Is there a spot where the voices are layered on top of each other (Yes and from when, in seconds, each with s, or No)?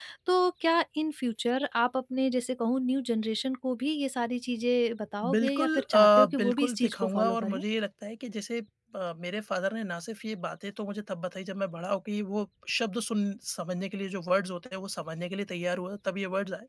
Yes, from 5.2 s